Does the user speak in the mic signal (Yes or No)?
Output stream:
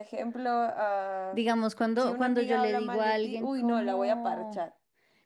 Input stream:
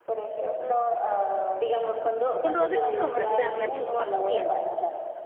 Yes